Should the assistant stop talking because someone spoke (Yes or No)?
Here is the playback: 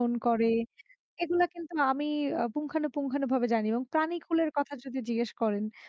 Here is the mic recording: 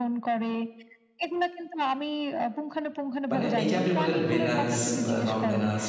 Yes